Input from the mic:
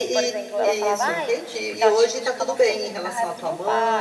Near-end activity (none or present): present